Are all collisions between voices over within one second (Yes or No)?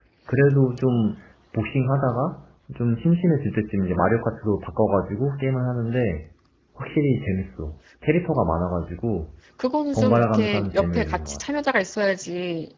No